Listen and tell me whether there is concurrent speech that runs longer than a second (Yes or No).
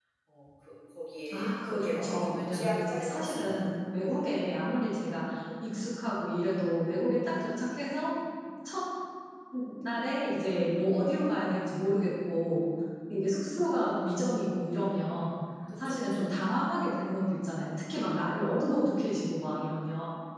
Yes